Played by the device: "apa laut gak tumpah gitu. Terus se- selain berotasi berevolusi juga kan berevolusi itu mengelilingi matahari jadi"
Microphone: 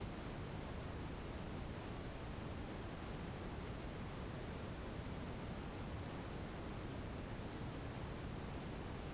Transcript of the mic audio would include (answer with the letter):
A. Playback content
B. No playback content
B